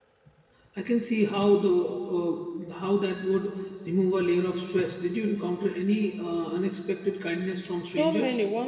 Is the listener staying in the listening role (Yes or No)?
No